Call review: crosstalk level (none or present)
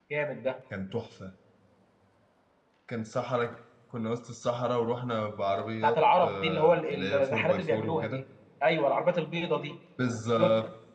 present